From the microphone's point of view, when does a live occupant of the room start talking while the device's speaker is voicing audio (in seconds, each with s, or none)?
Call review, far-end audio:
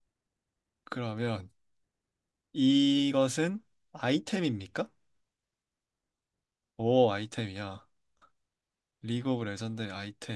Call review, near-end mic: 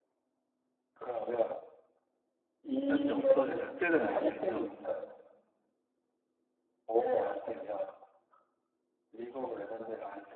2.9 s